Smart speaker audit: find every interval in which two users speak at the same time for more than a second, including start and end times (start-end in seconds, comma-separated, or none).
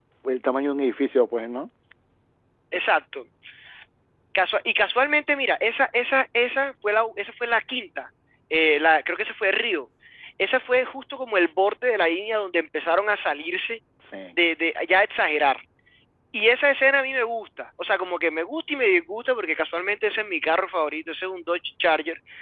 none